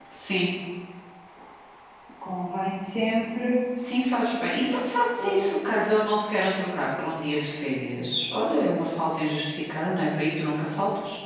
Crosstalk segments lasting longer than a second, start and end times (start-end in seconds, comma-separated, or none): none